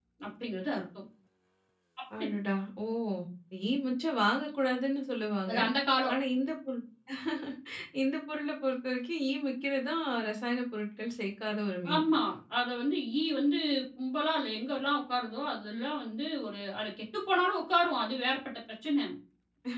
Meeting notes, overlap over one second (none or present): none